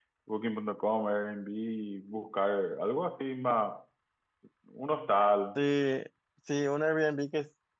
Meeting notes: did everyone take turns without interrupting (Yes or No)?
Yes